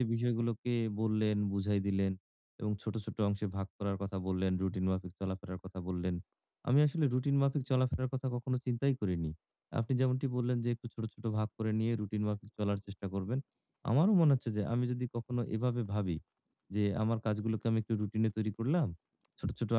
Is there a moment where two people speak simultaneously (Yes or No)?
No